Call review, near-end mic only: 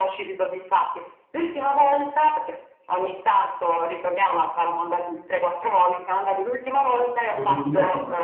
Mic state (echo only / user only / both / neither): both